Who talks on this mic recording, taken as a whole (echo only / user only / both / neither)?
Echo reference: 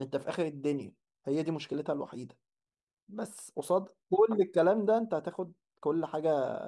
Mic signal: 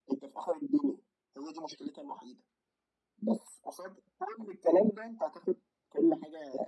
echo only